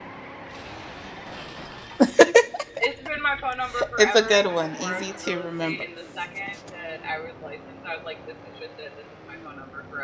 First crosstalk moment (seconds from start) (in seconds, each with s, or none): 3.7 s